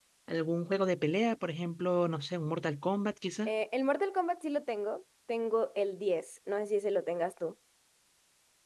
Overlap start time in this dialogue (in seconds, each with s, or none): none